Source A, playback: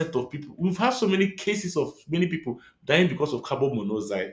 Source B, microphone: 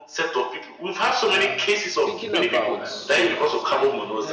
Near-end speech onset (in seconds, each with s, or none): 1.3 s